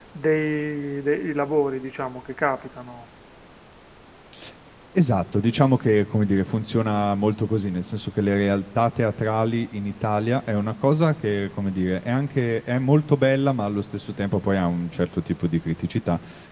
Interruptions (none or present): none